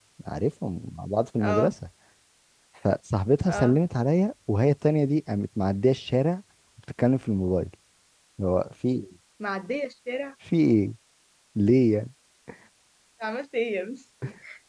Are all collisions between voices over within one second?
Yes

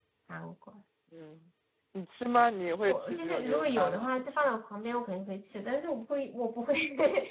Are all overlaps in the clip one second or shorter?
No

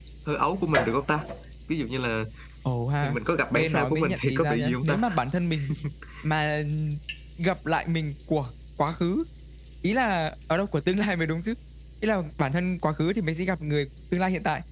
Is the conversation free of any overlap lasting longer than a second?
No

